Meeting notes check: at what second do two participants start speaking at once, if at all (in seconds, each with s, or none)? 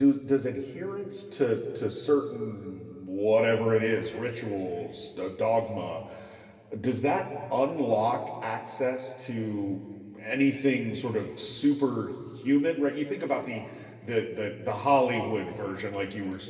none